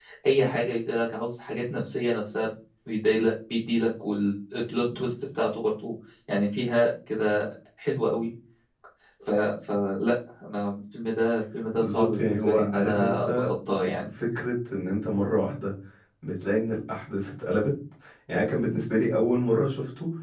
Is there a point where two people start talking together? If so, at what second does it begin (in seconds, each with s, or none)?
11.7 s